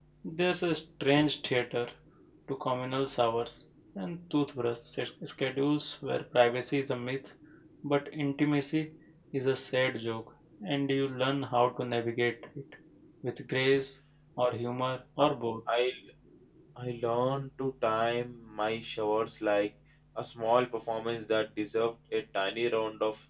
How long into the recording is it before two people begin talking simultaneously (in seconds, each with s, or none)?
none